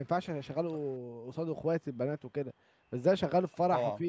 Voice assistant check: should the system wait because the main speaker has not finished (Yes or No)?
Yes